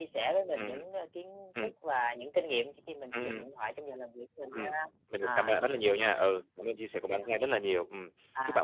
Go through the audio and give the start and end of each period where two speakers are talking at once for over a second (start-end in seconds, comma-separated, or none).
none